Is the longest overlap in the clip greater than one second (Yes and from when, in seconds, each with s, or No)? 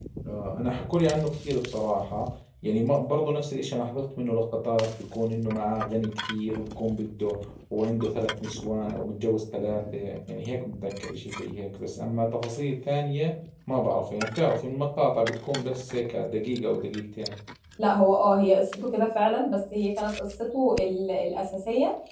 No